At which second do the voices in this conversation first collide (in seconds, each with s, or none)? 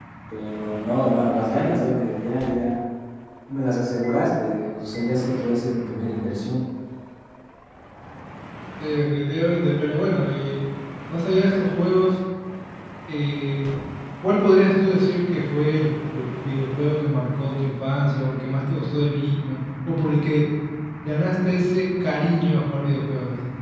none